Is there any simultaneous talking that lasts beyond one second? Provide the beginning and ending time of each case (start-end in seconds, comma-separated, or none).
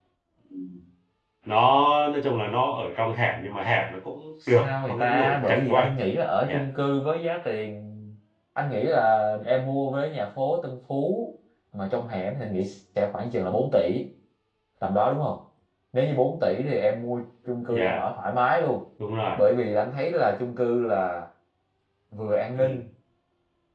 4.5-5.9